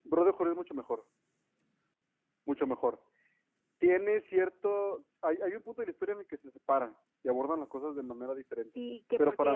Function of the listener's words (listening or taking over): taking over